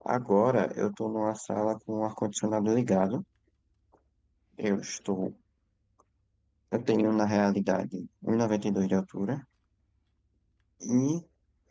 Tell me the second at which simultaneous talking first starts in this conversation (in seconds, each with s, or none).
none